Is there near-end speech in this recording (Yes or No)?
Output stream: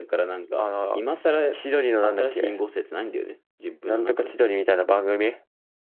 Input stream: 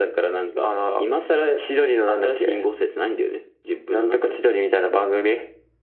No